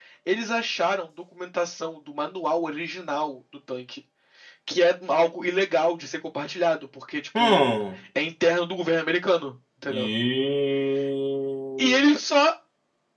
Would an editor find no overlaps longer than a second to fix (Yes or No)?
Yes